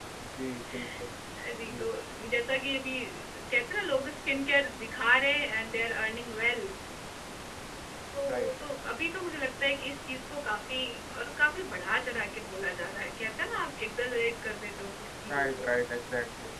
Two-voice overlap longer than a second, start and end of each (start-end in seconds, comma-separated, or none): none